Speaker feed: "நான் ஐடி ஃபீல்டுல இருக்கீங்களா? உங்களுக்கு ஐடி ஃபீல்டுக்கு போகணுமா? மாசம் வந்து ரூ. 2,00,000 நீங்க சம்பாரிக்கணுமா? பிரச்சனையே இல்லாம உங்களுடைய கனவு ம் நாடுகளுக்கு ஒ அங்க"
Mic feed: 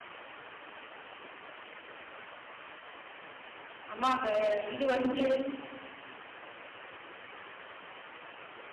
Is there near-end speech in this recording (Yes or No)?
Yes